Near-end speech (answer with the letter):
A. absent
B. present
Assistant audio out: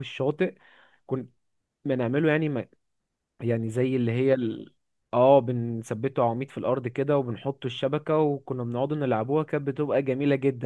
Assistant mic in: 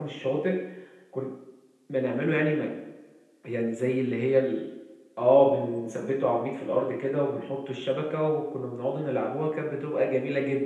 A